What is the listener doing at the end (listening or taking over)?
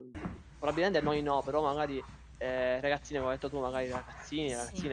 listening